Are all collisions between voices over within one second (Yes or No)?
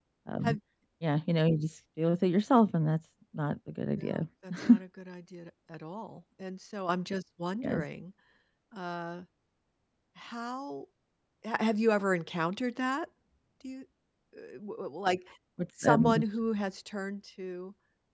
Yes